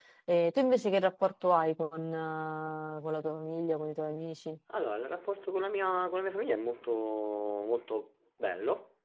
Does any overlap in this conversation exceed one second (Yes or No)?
No